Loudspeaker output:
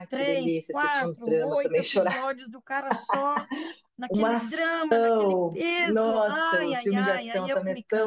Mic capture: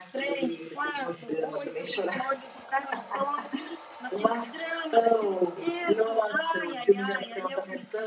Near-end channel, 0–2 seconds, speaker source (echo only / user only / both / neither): echo only